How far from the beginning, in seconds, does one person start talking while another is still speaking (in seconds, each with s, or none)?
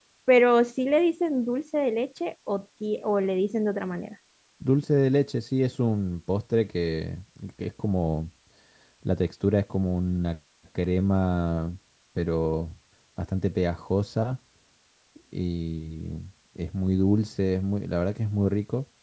none